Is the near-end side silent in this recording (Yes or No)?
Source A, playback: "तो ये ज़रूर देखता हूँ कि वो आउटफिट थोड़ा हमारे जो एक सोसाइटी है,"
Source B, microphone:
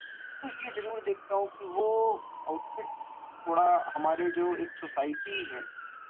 Yes